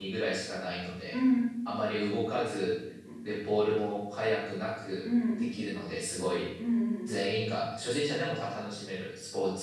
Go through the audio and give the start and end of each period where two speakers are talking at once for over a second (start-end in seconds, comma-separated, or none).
none